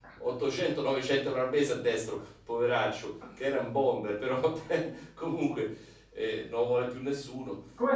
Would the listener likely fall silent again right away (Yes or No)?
No